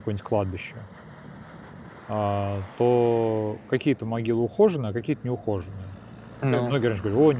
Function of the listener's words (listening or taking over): listening